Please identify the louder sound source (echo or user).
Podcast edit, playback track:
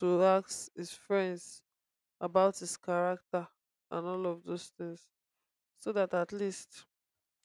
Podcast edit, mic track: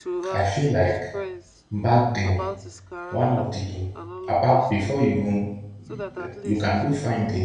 user